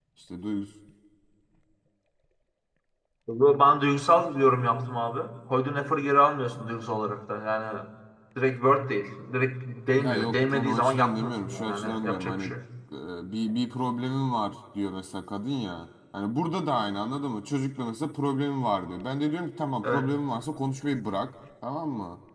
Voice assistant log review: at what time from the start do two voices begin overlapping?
10.0 s

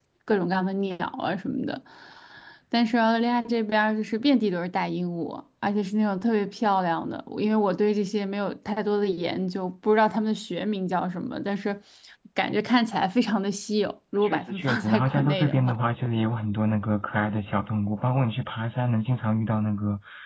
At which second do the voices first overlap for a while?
14.2 s

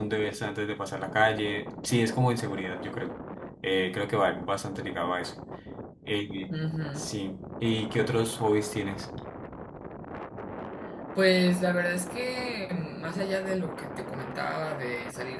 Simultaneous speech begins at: none

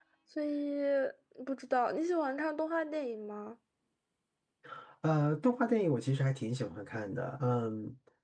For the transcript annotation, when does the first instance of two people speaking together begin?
none

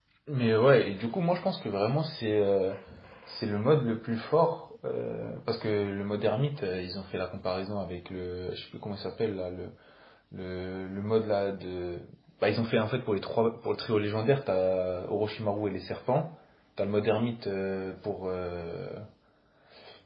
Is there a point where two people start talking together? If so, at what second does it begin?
none

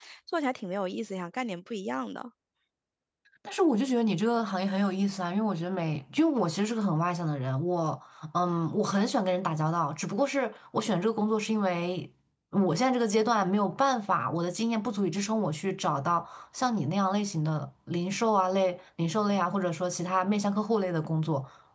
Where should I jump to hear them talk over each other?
none

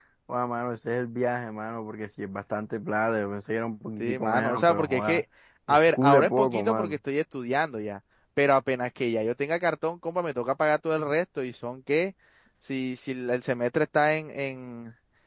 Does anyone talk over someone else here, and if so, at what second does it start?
4.0 s

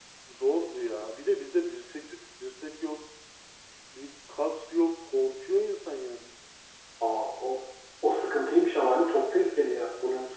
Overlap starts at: none

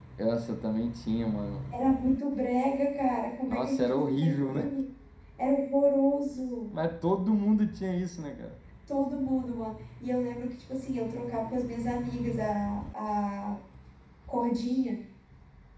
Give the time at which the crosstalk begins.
3.5 s

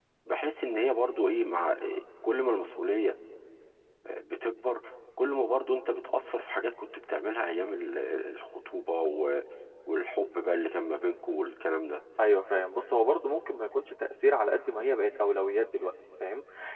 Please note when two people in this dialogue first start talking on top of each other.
none

